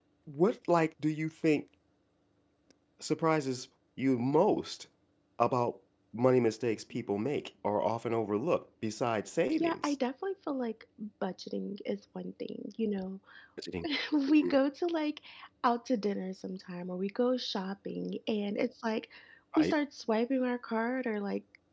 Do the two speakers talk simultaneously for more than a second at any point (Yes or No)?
No